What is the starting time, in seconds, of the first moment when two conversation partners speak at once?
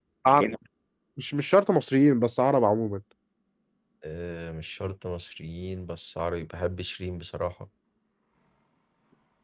none

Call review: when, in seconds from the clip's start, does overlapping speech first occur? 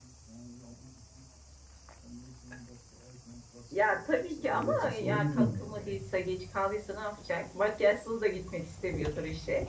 3.7 s

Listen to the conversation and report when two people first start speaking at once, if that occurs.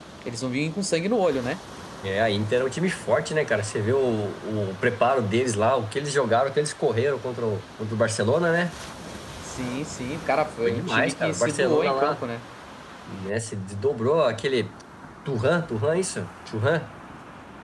10.6 s

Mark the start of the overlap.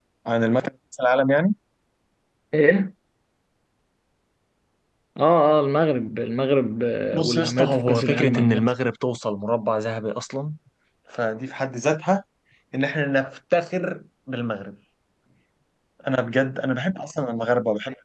7.1 s

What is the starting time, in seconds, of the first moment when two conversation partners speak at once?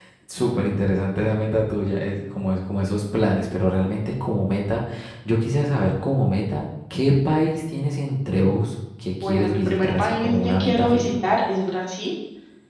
9.2 s

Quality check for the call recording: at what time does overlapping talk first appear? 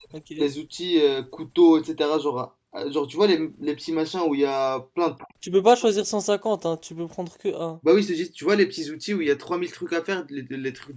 none

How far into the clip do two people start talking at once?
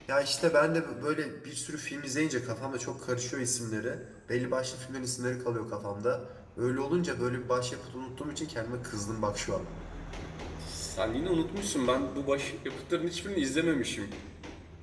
none

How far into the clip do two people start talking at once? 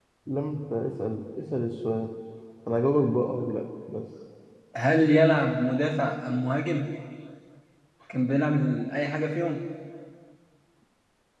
none

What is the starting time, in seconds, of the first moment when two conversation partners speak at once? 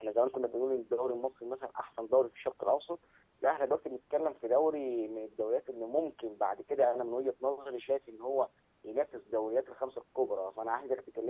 none

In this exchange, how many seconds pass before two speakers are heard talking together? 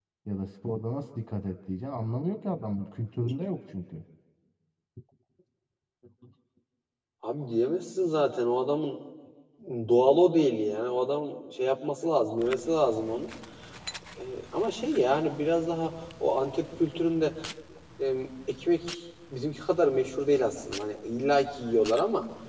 none

